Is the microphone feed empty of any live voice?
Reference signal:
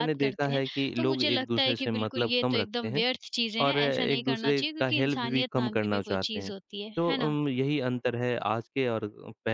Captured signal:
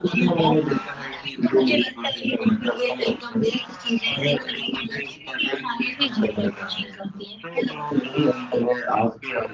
No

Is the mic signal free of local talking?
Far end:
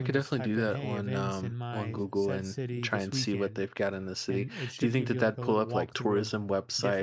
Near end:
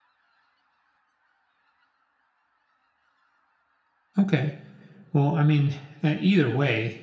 No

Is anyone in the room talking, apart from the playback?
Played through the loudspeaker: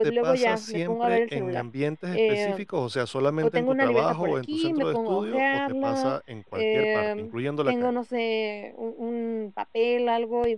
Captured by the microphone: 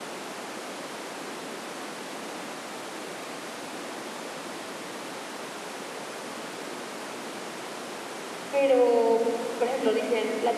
Yes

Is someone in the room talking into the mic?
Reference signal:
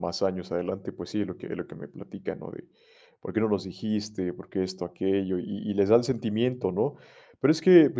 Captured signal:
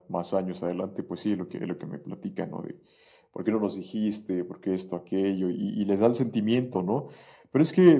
No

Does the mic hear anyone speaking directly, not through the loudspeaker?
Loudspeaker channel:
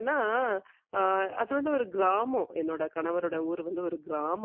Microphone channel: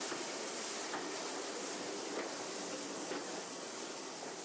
No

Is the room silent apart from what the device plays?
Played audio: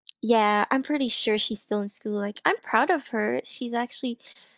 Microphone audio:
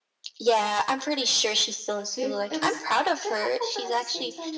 No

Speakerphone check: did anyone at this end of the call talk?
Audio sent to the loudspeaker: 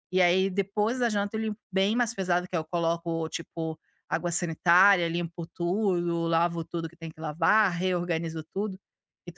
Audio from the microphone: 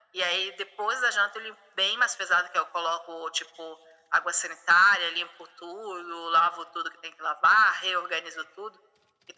No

